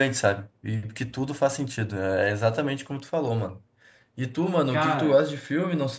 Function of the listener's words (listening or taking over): listening